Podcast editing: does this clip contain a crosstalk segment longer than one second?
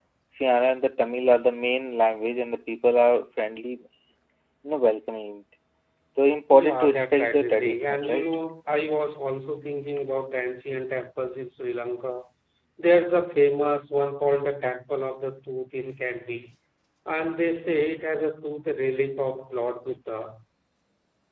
Yes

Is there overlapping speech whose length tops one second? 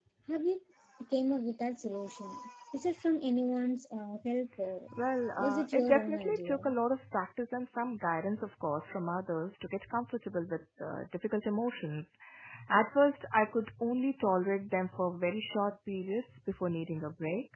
Yes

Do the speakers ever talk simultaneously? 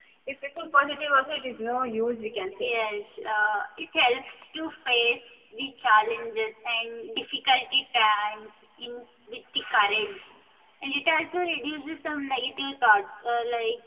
No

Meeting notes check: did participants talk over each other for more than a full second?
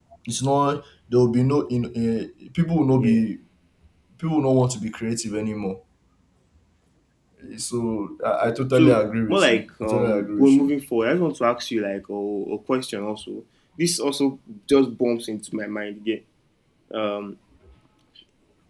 Yes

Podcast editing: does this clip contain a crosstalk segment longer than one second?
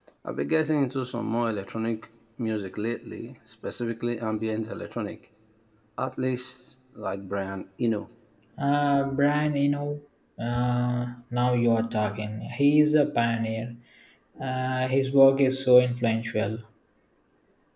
No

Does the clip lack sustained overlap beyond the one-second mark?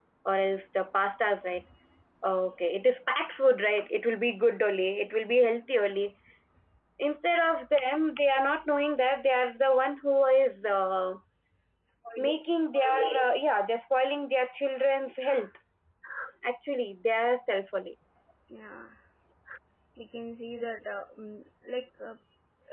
Yes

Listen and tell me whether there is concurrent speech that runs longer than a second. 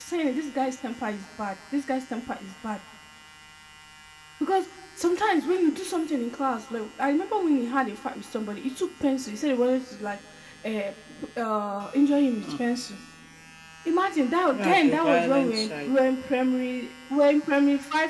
Yes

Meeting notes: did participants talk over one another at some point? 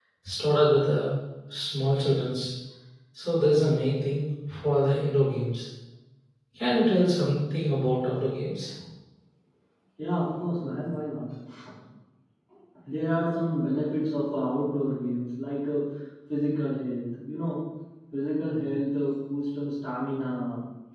No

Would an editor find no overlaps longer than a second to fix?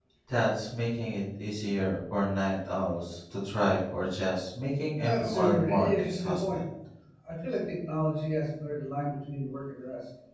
No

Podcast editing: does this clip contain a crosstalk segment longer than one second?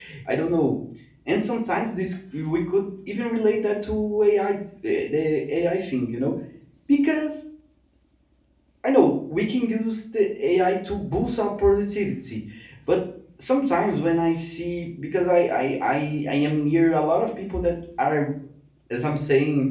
No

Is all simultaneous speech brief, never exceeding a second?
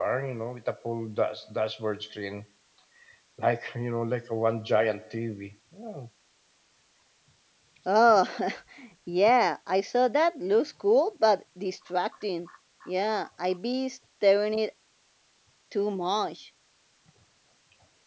Yes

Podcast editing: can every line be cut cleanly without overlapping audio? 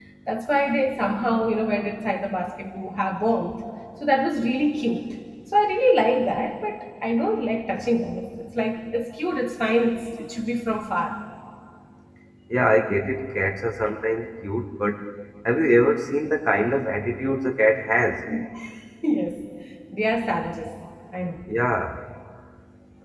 Yes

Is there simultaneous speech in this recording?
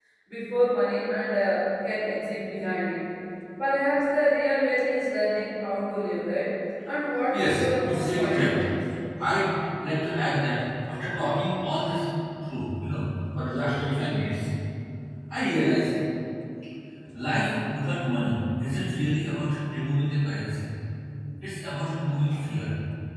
Yes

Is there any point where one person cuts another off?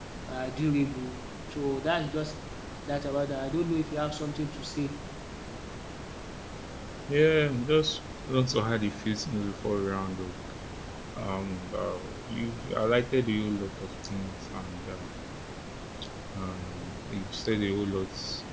No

